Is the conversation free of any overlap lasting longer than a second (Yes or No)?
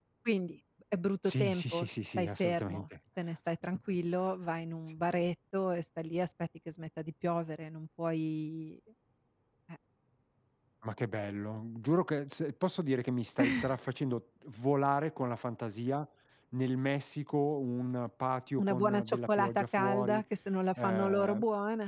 No